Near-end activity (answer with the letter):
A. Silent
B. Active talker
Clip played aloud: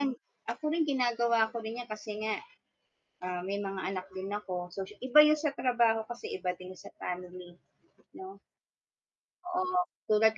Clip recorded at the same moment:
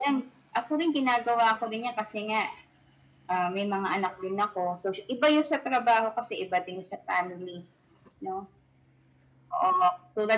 A